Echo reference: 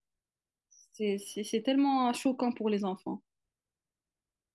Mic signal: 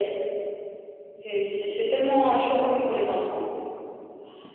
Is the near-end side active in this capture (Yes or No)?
No